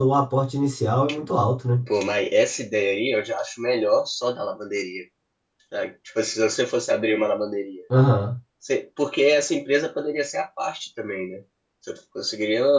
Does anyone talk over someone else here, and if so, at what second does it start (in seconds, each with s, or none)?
none